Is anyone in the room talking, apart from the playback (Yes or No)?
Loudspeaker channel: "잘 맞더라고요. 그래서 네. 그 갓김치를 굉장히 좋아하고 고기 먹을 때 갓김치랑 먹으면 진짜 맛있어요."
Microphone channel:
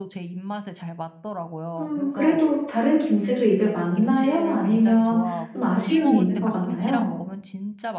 Yes